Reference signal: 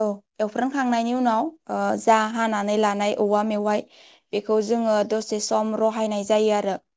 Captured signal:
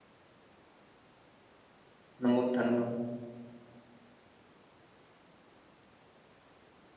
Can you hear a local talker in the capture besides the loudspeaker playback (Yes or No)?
Yes